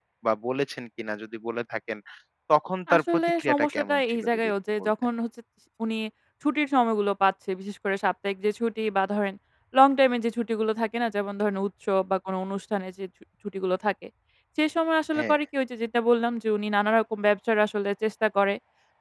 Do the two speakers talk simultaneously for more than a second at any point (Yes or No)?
Yes